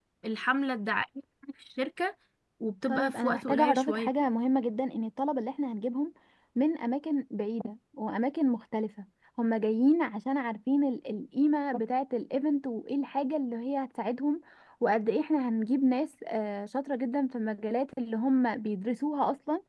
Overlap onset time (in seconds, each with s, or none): 2.9 s